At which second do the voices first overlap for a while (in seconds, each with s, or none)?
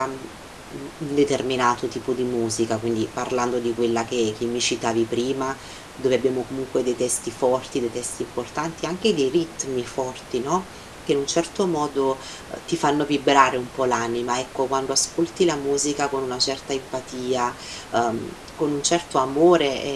none